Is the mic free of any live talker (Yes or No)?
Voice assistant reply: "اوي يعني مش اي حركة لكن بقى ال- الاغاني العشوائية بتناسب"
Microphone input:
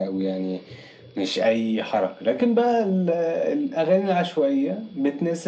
Yes